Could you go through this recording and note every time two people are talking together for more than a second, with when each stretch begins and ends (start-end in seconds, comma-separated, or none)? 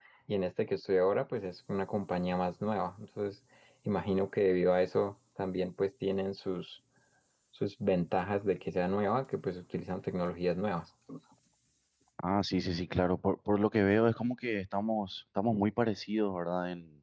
none